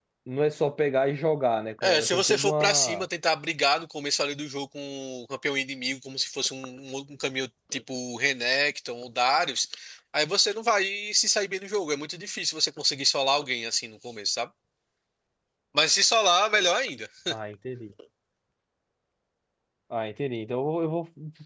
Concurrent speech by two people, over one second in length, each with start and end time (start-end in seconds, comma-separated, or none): 1.8-3.0